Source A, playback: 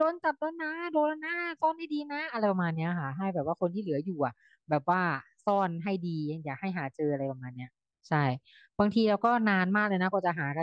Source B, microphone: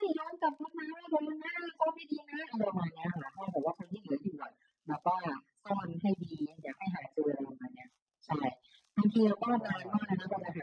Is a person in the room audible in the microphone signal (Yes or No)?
Yes